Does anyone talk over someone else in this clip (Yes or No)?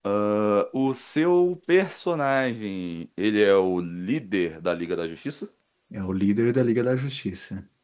No